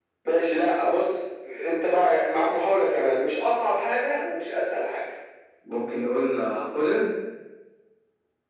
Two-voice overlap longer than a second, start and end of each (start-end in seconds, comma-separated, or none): none